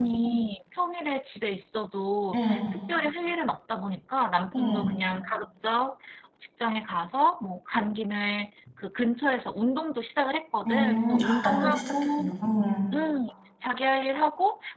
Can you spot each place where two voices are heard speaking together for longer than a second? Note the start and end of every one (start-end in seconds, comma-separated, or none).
10.7-12.3